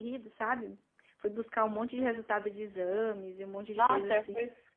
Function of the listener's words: taking over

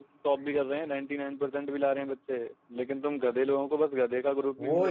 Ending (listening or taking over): taking over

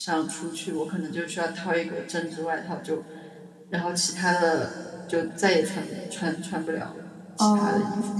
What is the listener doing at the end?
taking over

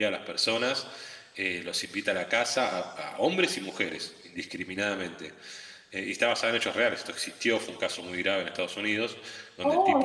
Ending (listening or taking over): taking over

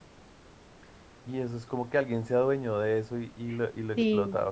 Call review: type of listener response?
taking over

